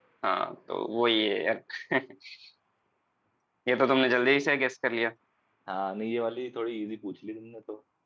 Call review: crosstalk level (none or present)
none